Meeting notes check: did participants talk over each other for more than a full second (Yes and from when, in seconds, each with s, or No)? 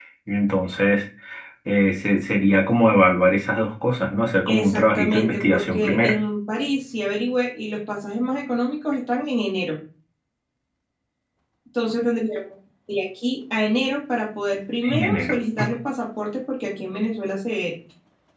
Yes, from 4.4 s